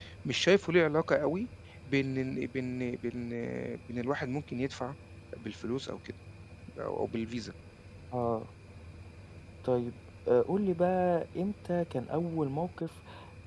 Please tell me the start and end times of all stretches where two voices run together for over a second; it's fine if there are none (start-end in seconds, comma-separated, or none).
none